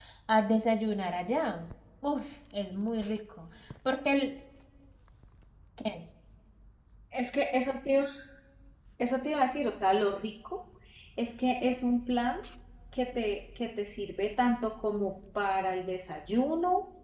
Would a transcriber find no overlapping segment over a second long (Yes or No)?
Yes